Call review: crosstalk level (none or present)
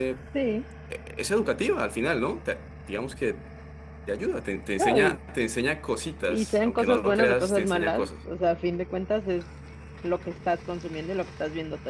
present